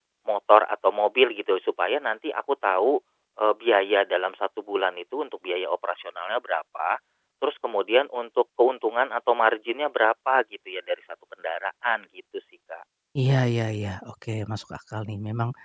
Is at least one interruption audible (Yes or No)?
No